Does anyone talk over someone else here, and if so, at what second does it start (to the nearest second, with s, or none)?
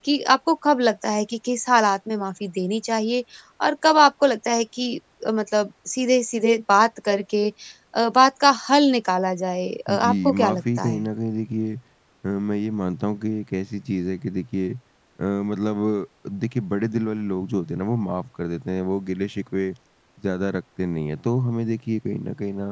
10 s